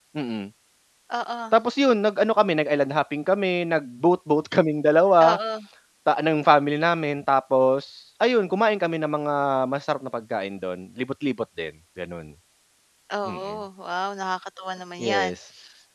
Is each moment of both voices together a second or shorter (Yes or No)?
Yes